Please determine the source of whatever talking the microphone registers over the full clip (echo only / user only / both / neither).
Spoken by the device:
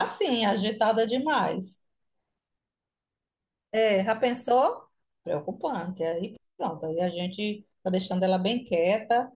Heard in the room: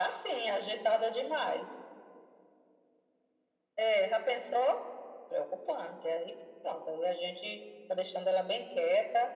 echo only